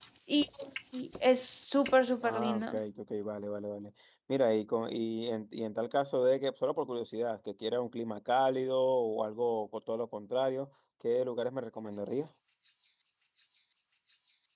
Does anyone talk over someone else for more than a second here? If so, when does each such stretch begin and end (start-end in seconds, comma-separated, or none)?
none